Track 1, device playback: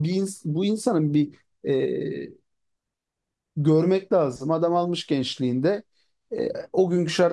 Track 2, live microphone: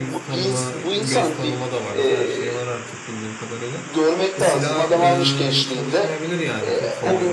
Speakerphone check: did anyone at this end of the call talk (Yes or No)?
Yes